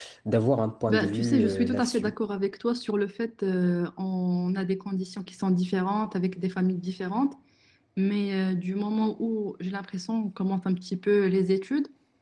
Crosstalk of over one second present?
Yes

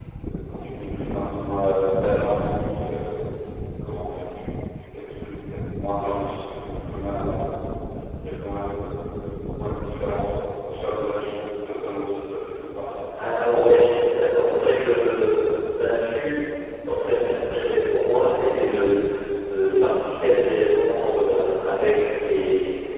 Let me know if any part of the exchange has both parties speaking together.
No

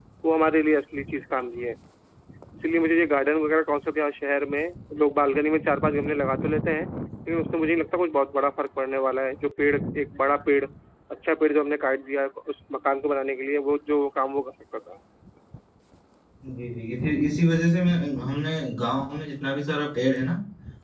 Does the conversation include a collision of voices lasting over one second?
No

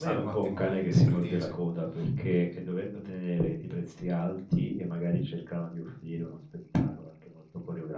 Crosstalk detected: Yes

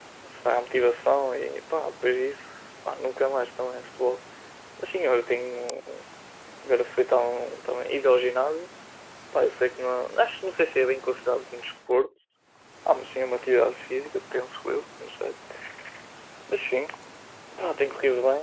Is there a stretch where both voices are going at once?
No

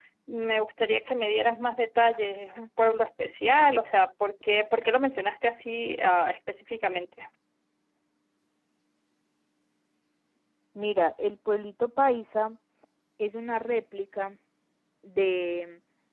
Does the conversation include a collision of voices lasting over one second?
No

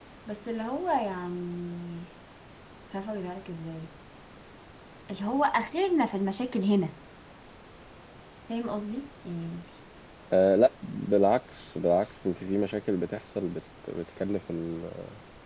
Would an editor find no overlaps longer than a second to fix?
Yes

